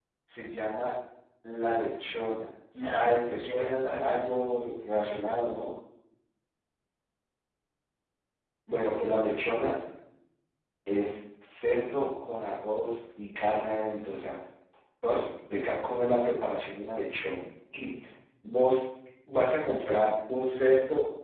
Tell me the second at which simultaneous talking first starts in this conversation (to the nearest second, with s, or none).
3 s